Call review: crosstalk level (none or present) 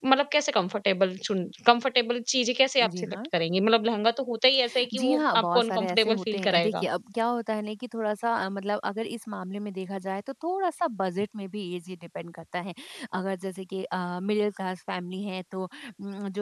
present